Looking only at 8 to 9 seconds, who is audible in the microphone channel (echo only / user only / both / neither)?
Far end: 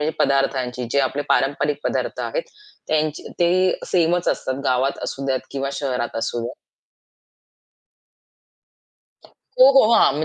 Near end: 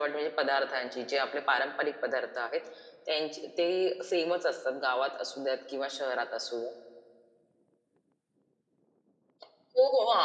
neither